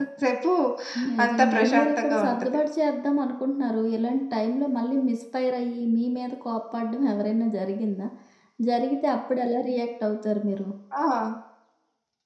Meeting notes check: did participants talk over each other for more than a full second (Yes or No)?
Yes